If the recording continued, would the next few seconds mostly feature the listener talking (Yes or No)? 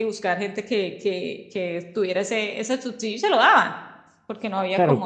Yes